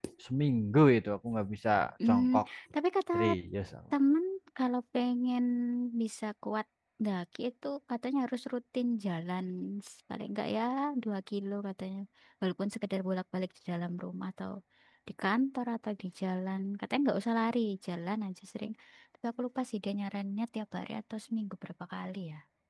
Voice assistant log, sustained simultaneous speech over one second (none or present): none